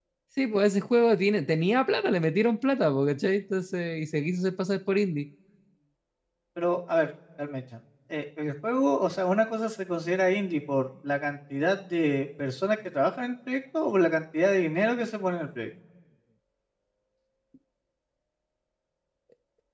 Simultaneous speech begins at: none

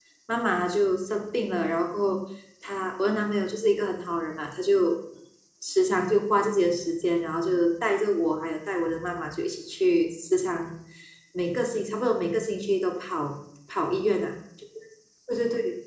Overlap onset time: none

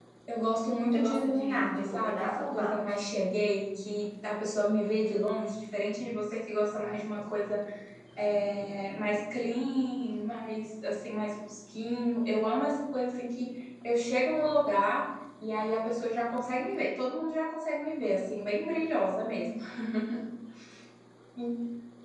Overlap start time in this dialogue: 0.9 s

